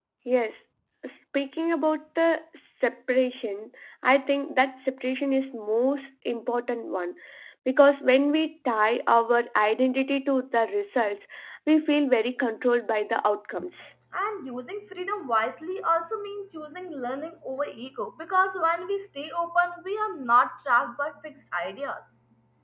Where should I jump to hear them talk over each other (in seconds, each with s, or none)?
none